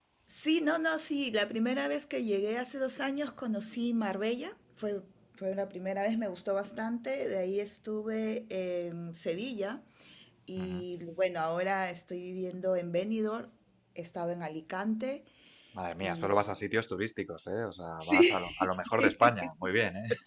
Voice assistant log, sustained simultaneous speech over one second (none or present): present